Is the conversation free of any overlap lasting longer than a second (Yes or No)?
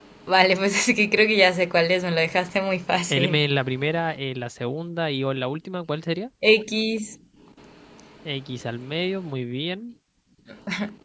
Yes